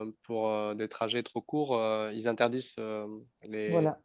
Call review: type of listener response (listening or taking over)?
listening